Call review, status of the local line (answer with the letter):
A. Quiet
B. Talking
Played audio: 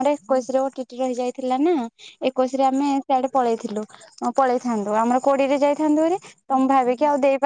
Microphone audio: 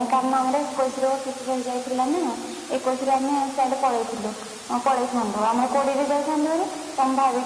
A